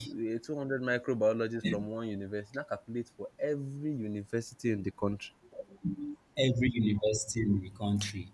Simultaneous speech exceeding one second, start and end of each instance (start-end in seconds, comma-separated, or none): none